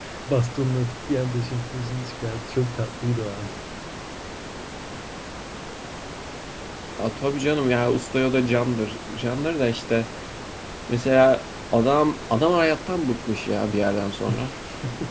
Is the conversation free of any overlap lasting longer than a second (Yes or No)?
Yes